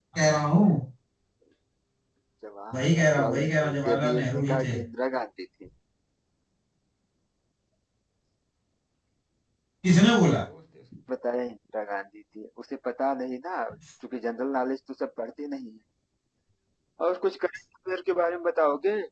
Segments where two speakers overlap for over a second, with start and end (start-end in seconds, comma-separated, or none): 2.7-4.8